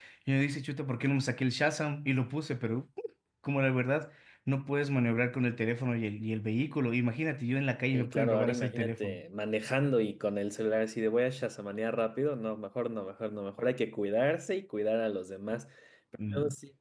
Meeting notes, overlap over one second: present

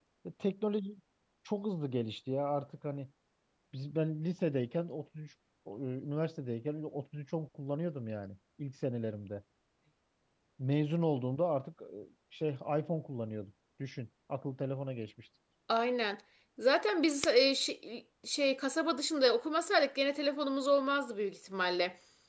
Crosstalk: none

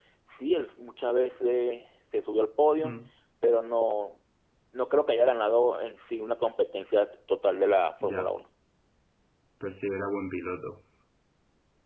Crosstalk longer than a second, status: none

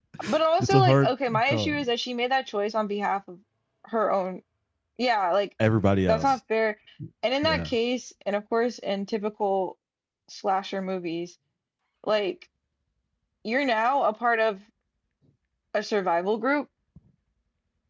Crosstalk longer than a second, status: present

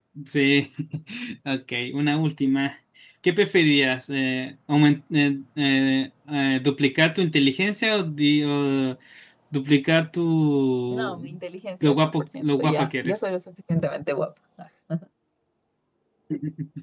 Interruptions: present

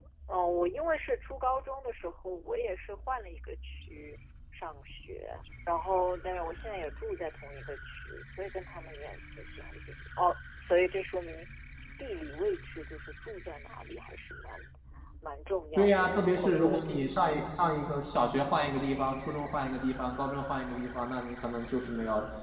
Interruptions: present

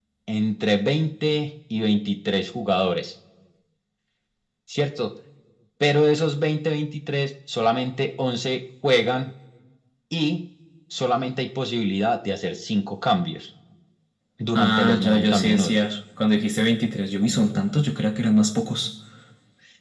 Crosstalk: present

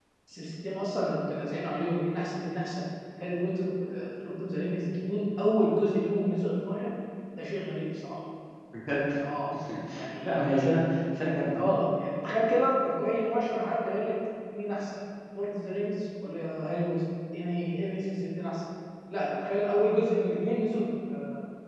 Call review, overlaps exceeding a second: none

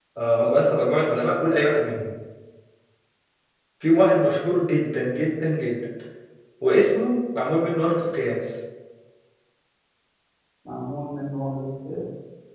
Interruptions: none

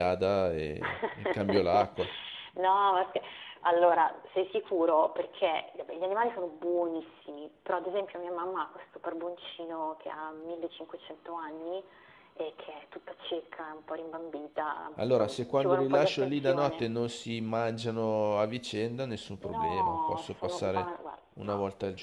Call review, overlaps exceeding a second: present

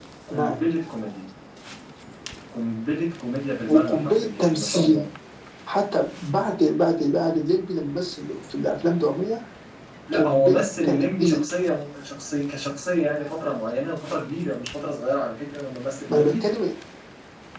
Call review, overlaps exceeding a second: present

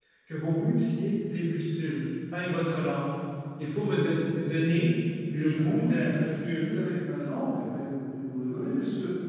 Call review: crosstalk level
present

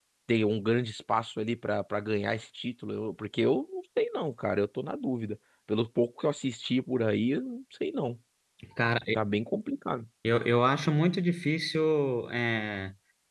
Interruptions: none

